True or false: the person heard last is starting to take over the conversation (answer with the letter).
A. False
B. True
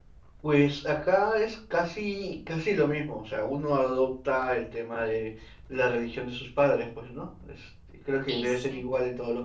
A